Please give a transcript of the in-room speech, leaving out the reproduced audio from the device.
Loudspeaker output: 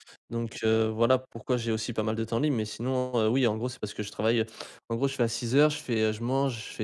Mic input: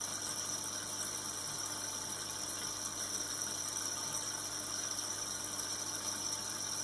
none

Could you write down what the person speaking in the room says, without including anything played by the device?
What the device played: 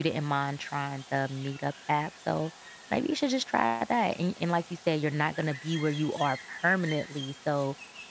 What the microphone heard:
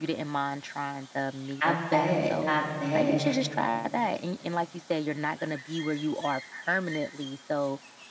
I bet. I bet.

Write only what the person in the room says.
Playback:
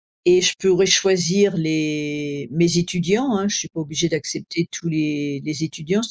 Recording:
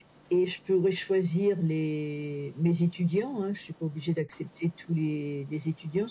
none

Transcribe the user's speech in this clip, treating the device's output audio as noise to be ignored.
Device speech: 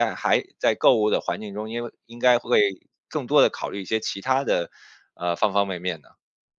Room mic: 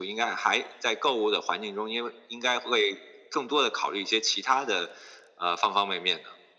none

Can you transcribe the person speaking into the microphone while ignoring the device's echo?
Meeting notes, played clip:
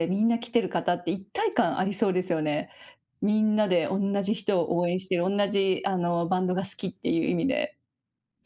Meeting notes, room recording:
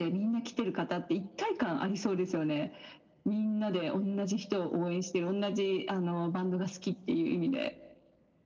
none

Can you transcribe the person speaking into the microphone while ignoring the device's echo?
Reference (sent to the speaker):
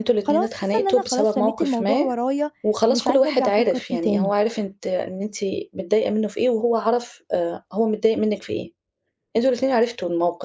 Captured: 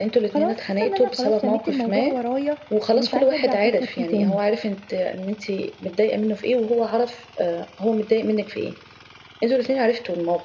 none

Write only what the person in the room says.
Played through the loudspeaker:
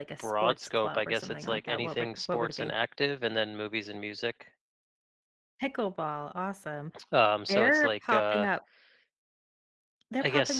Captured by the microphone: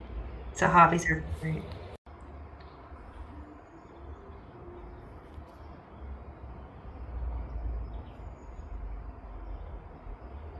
so hobbies are great.

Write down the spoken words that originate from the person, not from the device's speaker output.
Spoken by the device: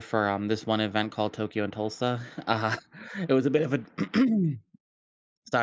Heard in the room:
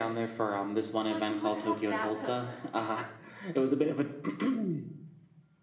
So, like, you would have that, so

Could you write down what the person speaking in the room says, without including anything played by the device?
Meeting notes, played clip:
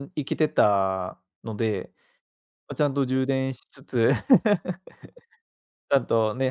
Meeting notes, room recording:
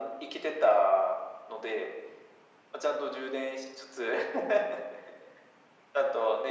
none

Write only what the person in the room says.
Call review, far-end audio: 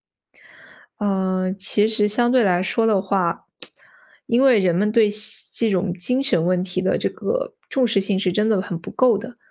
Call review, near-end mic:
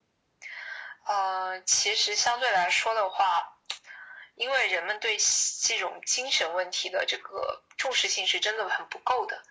none

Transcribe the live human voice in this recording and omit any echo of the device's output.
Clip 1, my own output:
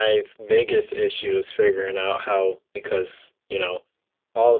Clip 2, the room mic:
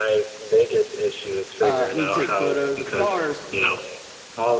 uh, me to take photos of cars.

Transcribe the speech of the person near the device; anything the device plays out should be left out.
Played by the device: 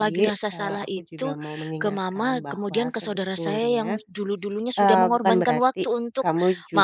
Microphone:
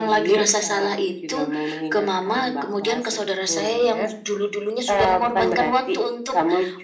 none

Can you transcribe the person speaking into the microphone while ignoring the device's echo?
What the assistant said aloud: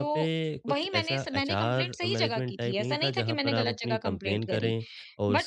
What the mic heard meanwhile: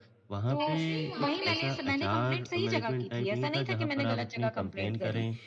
एक्चुअली वहाँ पे

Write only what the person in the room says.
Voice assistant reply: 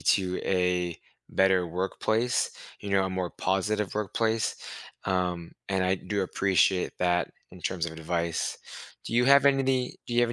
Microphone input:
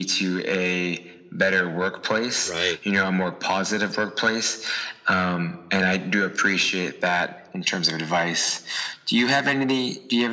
right.

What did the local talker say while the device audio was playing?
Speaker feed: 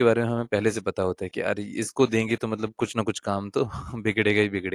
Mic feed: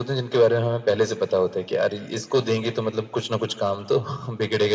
none

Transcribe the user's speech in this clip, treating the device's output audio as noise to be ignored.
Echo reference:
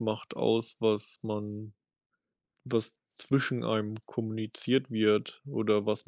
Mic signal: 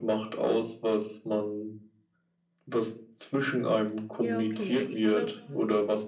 Ja, okay. Ich glaube

